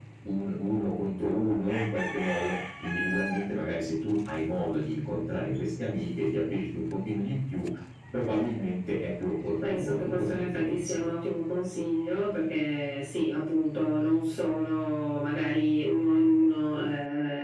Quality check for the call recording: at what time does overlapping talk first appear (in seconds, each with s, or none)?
9.6 s